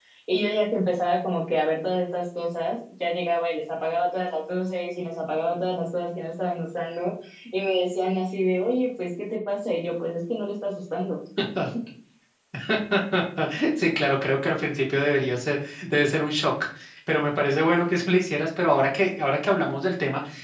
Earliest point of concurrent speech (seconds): none

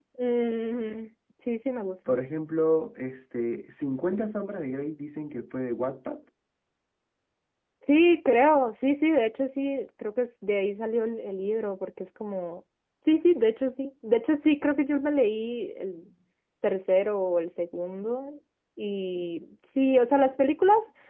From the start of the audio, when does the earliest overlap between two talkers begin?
none

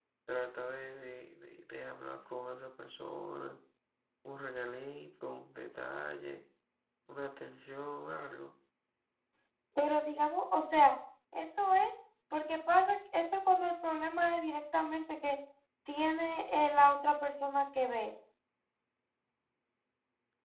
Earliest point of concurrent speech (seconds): none

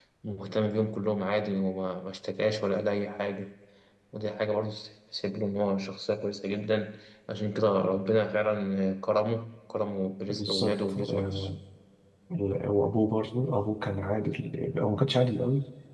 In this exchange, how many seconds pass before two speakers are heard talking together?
10.3 s

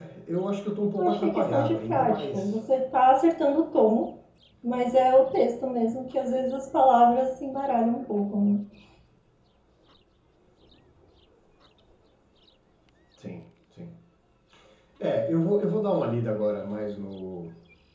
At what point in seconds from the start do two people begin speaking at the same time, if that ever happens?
1.0 s

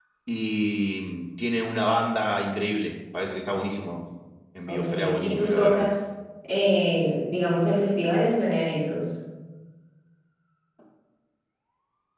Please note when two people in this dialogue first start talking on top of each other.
4.7 s

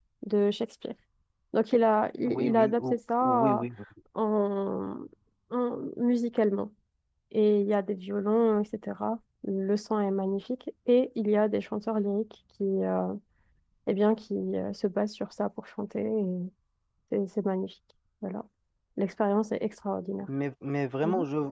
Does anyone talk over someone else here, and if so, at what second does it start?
2.2 s

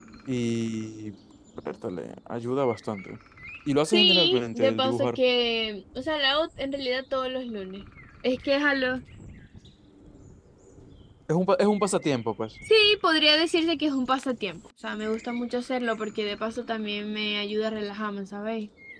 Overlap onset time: 3.9 s

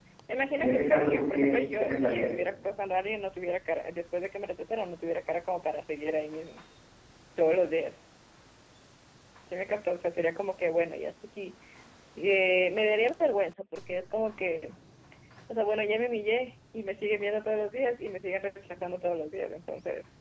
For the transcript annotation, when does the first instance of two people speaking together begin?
0.6 s

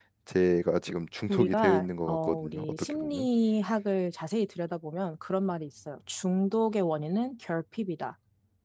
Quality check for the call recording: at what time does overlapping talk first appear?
1.3 s

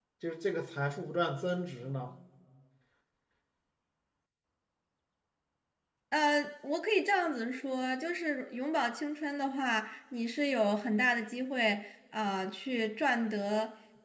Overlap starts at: none

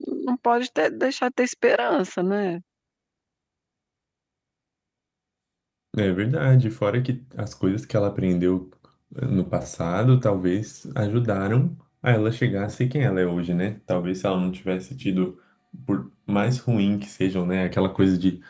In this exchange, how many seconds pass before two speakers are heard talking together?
none

